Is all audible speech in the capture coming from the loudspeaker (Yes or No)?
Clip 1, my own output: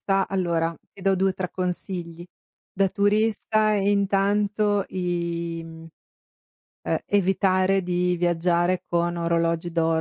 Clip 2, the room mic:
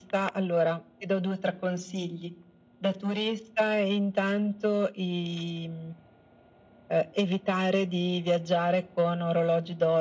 Yes